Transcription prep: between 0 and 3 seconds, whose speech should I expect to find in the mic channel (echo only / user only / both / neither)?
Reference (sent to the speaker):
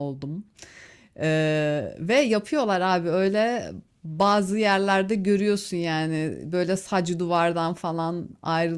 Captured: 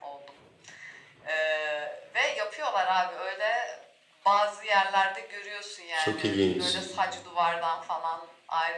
echo only